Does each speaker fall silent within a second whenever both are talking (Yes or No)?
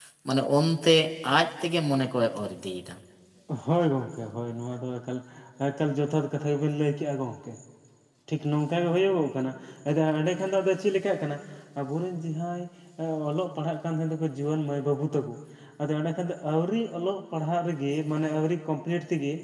Yes